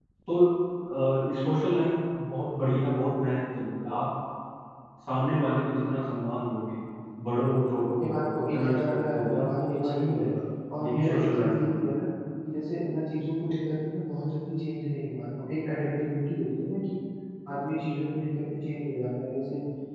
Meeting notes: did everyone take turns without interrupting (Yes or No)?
No